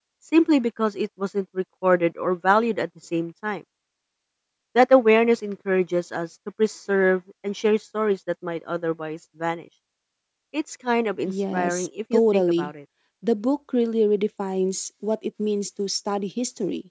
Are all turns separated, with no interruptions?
No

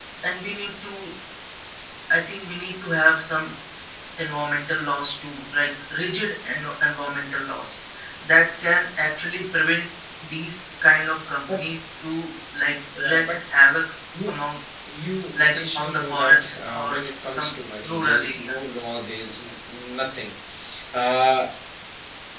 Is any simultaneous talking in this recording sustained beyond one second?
Yes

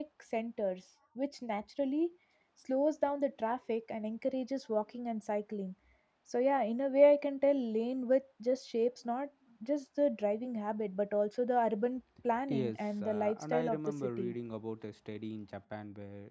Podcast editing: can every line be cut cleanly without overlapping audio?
No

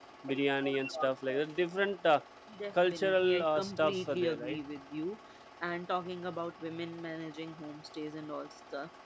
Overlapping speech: Yes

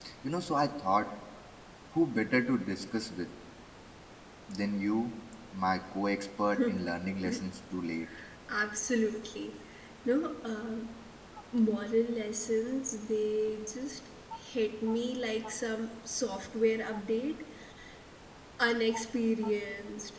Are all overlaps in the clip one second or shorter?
Yes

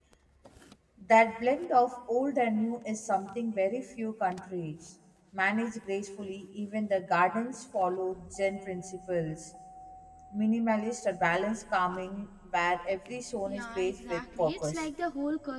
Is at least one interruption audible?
Yes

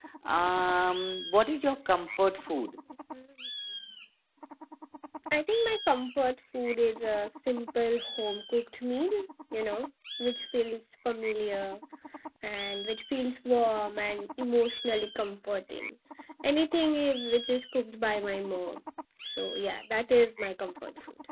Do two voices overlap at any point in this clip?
No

